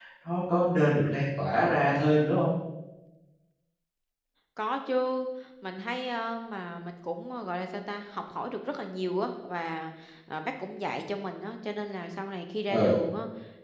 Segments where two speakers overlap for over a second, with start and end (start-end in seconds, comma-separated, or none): none